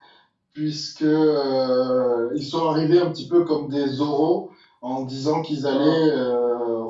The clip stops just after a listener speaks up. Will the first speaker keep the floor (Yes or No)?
Yes